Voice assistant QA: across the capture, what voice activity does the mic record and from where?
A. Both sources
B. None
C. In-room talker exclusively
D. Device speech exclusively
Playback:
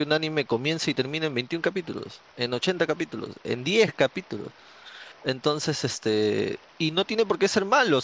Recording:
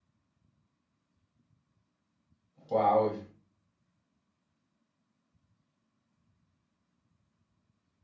C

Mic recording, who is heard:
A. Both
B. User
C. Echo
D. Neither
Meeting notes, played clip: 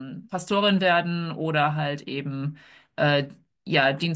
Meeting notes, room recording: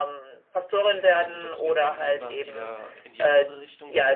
A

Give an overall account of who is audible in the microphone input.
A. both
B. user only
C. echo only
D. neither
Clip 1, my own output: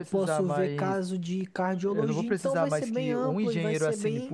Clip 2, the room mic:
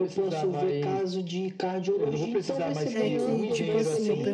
A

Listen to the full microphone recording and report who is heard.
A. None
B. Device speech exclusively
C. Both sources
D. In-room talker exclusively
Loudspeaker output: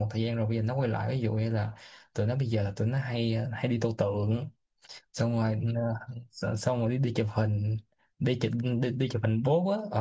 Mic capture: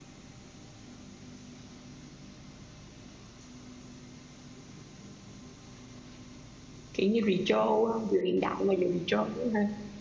D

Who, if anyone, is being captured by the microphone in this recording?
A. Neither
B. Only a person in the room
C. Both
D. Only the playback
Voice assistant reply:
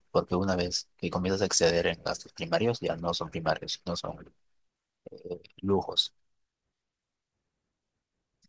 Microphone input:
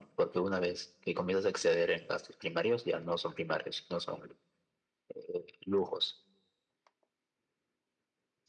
D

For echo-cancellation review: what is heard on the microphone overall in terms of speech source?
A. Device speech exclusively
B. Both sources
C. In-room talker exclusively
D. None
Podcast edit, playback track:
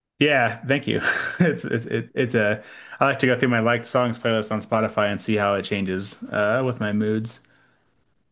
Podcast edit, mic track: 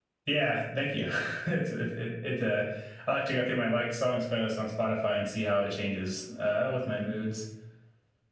A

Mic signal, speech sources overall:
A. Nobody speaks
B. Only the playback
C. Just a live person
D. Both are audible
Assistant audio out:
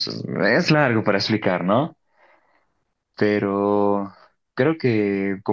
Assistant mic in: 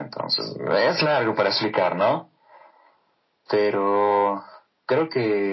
B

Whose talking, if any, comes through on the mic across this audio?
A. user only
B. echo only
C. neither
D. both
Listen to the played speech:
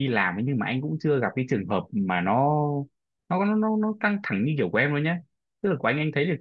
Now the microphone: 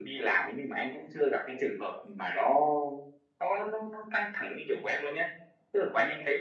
B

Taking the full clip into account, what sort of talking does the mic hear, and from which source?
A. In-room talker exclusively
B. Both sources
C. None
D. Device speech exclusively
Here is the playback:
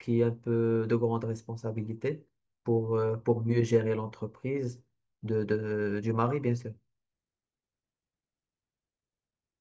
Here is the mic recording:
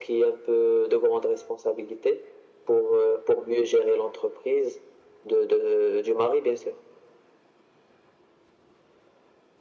D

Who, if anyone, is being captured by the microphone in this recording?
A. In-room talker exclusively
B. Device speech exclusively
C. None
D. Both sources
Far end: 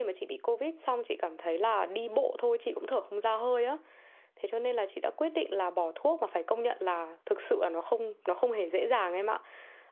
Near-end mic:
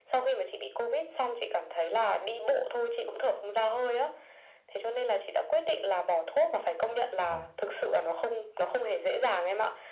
D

